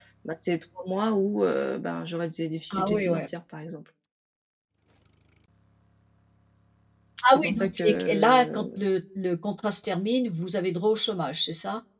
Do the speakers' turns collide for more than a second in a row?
Yes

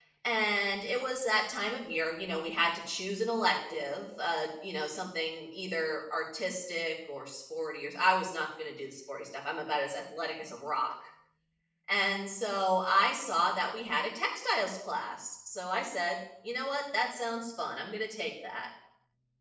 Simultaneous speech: No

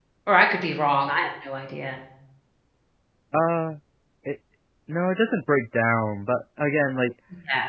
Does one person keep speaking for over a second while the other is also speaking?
No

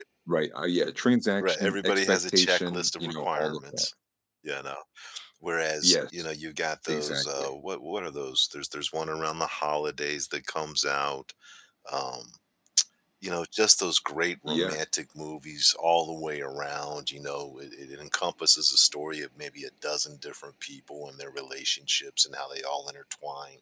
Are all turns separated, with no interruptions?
No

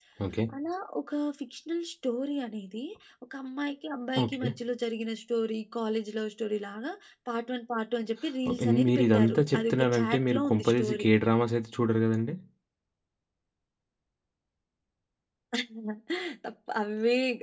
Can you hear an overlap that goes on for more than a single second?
Yes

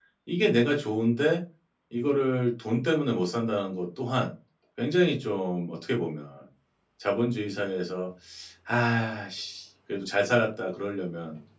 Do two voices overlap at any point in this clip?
No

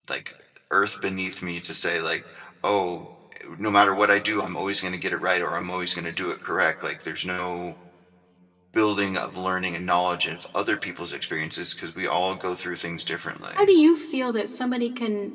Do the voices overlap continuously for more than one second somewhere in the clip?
No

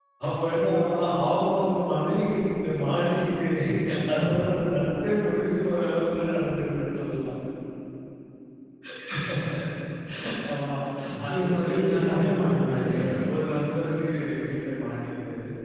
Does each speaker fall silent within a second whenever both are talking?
No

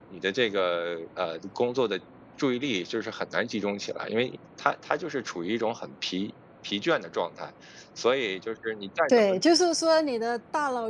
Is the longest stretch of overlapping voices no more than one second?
Yes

